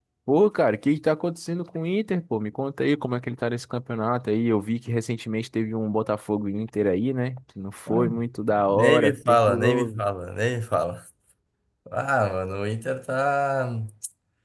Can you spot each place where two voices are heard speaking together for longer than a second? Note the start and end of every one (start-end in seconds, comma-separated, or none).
8.5-10.0